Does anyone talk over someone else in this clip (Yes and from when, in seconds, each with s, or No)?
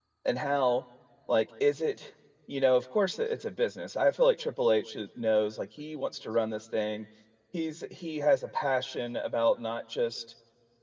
No